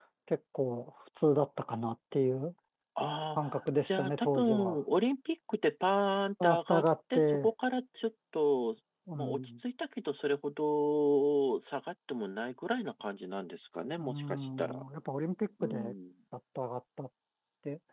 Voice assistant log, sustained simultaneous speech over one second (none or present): present